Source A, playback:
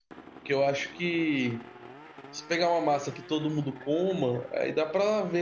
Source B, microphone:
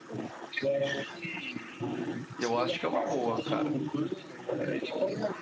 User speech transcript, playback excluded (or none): Eu acho que é uma boa, cara.